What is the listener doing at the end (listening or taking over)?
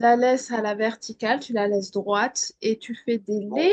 listening